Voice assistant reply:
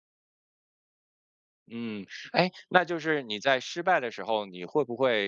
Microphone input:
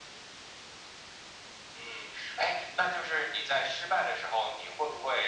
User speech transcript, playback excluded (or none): none